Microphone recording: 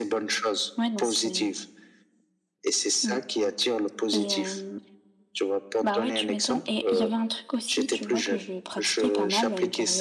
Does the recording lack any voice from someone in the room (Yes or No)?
No